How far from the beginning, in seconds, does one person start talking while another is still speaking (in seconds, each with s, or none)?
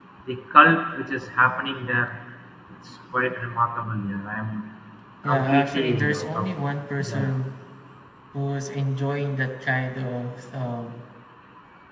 5.3 s